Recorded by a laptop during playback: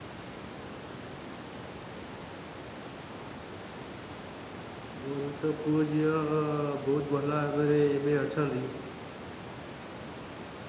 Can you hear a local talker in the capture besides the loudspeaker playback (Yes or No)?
Yes